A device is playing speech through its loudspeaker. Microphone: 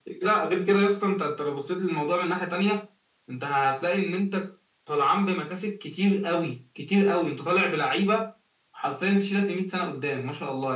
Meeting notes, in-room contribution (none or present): none